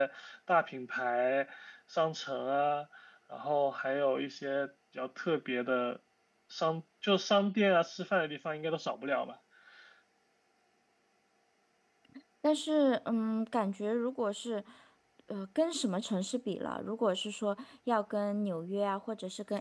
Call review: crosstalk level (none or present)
none